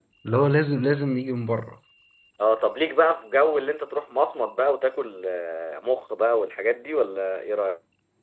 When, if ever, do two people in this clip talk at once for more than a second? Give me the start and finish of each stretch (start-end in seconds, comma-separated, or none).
none